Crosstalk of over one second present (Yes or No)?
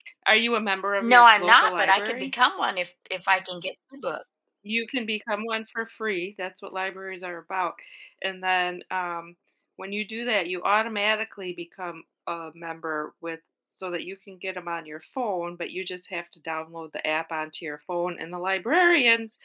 Yes